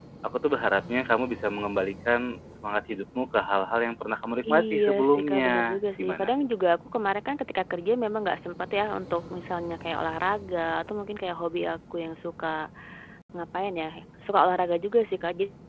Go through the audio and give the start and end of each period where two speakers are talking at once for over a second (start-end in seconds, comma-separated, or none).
4.5-6.3